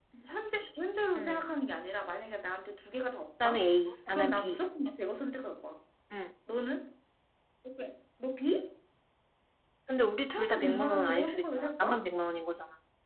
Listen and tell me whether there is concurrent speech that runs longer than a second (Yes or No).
Yes